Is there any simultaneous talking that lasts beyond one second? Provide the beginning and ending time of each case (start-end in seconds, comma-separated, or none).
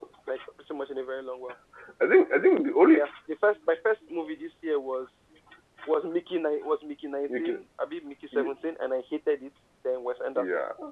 none